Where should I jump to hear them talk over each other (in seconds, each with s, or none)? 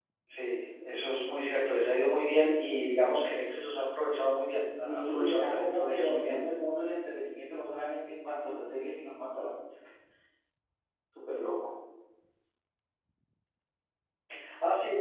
4.8 s